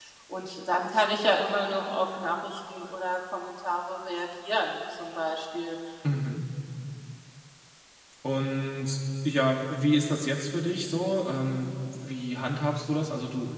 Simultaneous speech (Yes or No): No